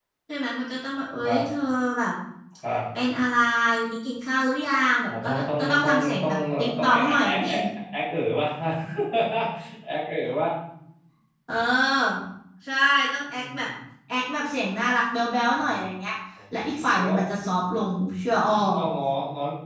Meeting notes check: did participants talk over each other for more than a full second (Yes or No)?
Yes